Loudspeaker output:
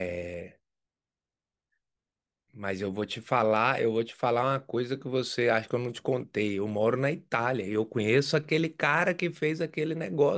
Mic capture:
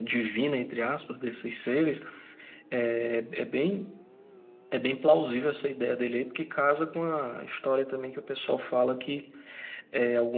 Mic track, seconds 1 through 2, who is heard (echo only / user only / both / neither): user only